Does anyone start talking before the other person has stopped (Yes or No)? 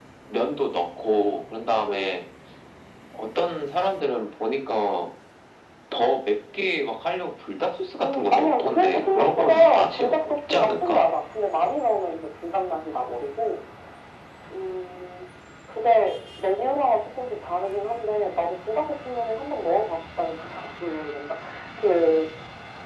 Yes